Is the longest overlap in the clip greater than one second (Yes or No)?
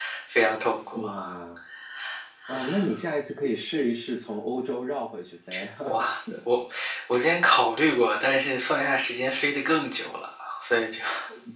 No